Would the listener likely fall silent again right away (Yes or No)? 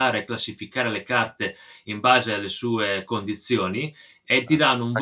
No